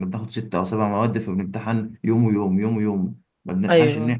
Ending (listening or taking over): listening